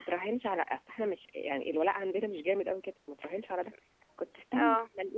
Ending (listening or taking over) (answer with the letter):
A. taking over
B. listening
B